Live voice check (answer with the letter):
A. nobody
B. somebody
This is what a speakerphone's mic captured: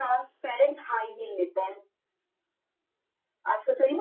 A